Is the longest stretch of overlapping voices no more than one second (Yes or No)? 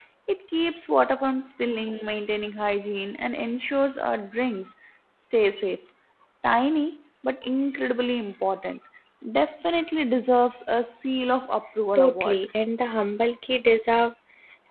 Yes